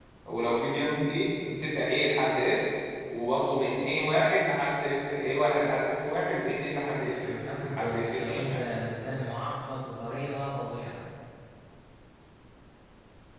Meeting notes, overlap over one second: present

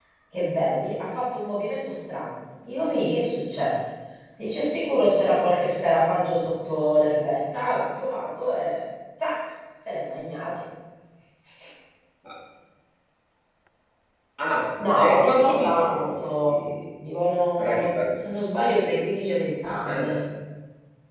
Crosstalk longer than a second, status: present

